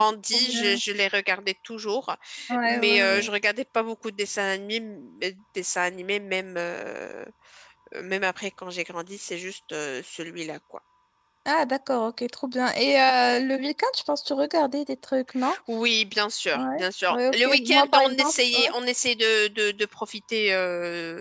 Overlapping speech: Yes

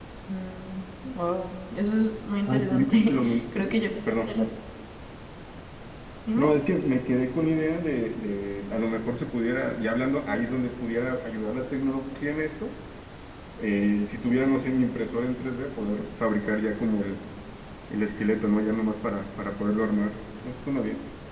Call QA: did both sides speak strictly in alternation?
No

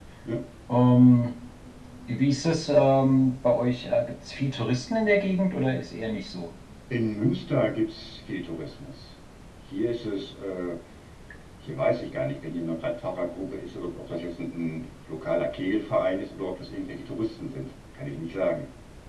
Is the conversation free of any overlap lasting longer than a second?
Yes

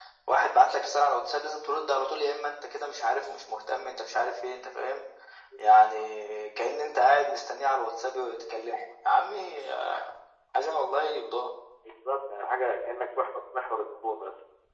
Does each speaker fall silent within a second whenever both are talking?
Yes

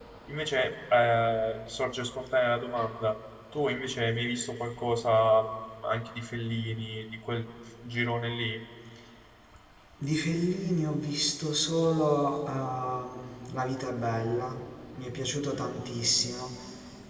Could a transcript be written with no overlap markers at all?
Yes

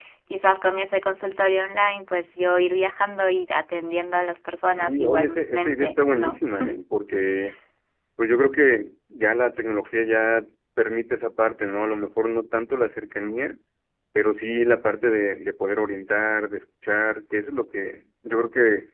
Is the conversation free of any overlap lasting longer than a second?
No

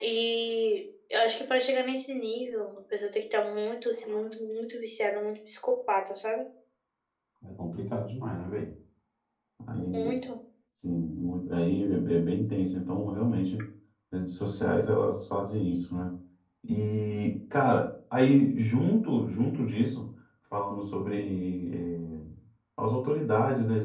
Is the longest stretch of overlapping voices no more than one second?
Yes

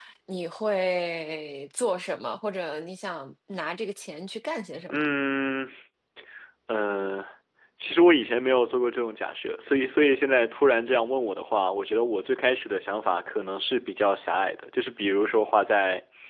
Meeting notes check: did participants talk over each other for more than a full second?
No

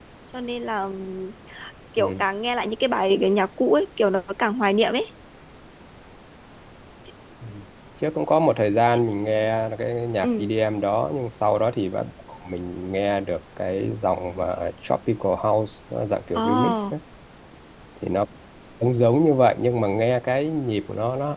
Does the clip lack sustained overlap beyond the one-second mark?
Yes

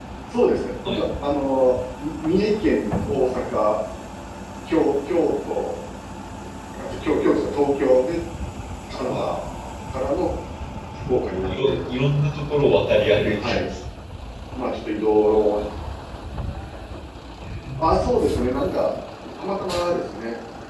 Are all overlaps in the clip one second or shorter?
Yes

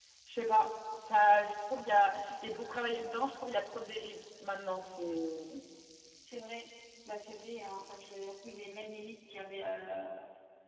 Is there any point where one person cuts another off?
No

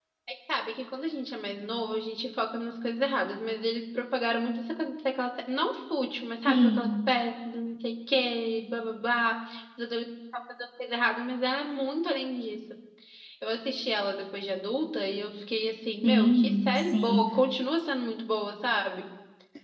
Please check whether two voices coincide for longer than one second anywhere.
Yes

